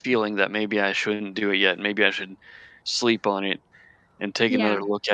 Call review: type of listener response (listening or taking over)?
listening